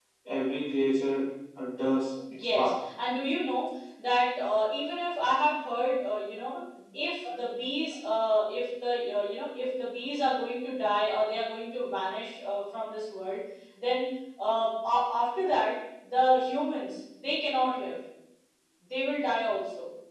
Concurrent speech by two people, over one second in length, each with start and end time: none

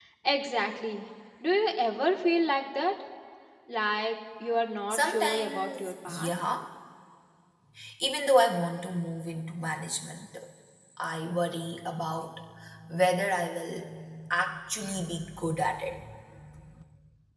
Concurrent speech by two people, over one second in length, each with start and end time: 4.9-6.3

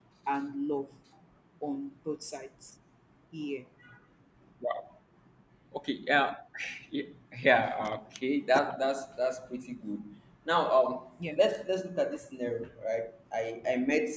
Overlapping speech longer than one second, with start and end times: none

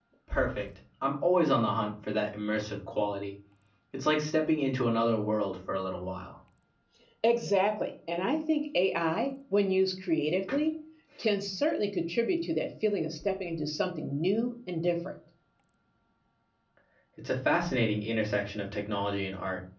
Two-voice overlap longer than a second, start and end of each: none

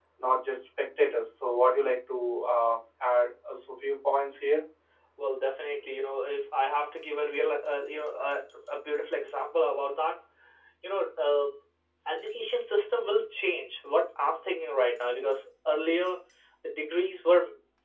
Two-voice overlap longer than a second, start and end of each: none

